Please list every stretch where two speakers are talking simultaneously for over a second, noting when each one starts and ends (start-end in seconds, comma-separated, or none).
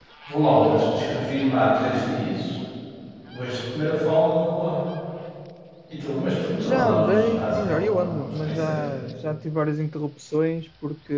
6.6-8.8